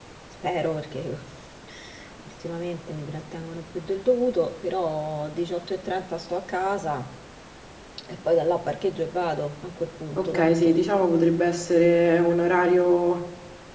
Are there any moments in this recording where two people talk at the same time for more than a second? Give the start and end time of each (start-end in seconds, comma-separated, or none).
none